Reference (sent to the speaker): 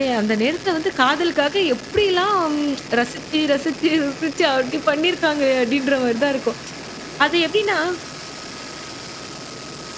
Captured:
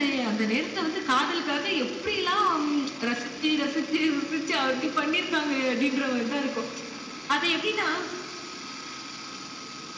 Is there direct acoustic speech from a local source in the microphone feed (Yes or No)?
No